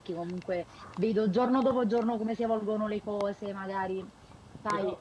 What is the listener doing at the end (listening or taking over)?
listening